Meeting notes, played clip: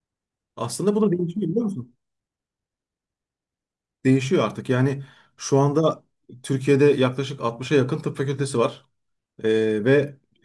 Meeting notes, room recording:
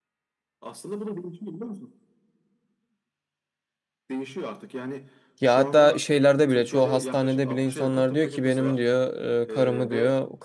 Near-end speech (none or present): present